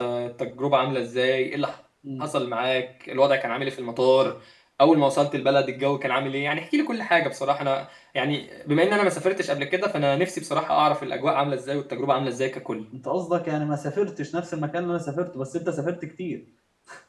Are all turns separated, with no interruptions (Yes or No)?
Yes